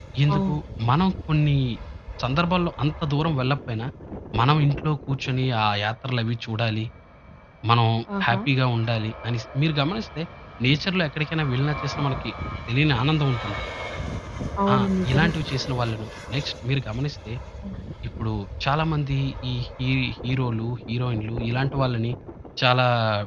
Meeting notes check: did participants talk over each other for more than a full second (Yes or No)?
No